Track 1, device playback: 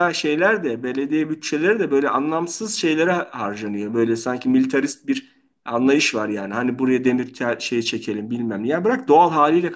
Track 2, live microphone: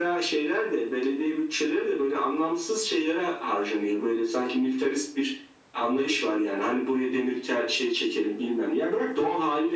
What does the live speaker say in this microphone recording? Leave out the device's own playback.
none

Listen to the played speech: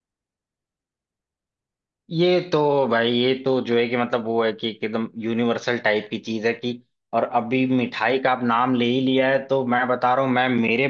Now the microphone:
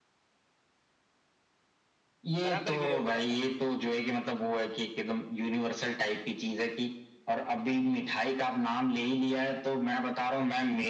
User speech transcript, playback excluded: बराबर गिरे हो गया है ना

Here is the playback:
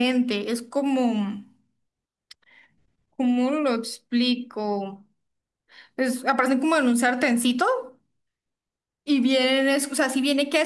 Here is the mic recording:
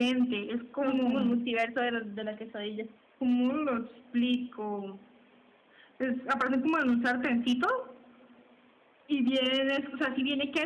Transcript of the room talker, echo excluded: Somos como el multiverso de la, de la quesadilla.

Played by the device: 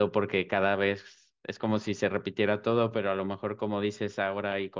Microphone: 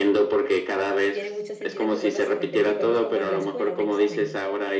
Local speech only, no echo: tiene mucho sentido que vuelvas a repetirlo, ¿no? Es como en la escuela, un examen.

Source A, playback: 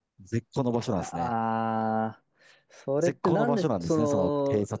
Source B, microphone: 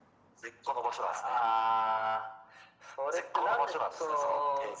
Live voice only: none

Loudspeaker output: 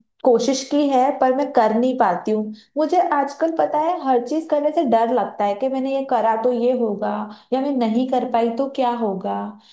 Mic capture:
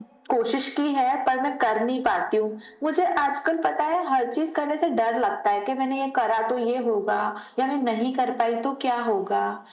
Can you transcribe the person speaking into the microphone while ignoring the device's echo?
none

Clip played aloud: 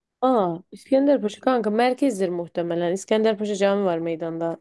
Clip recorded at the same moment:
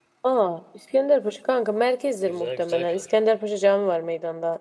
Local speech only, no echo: güzel güzel kadro.

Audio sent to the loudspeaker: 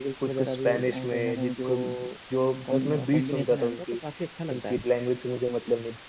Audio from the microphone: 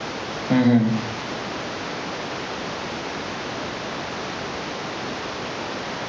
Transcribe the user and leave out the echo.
हम्म हम्म।

